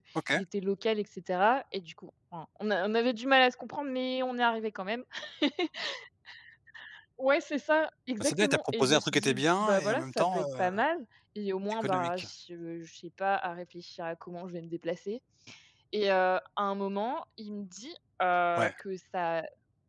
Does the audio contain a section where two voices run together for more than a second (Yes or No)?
Yes